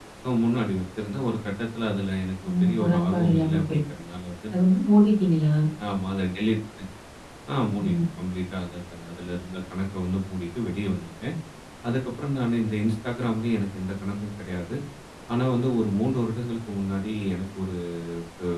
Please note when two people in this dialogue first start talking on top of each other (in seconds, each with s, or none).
2.5 s